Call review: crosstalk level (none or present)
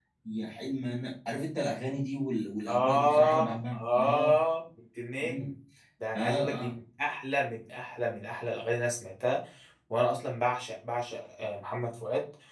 present